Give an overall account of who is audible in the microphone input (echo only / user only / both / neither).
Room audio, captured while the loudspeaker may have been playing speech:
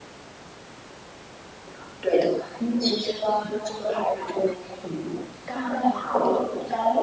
both